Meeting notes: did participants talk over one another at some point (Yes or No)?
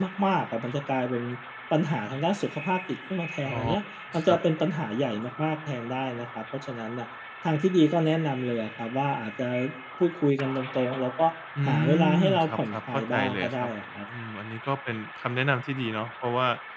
Yes